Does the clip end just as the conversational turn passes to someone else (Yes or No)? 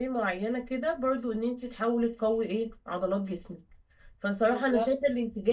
No